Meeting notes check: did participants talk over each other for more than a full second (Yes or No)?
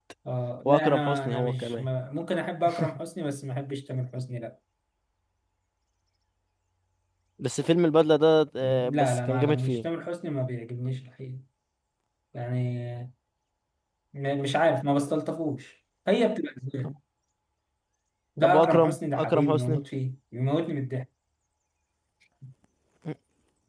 Yes